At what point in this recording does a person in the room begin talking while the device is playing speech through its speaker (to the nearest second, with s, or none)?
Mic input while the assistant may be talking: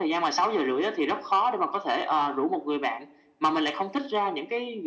none